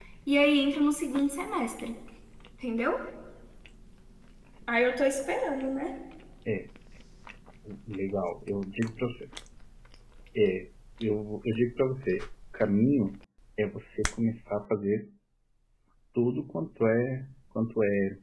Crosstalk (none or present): none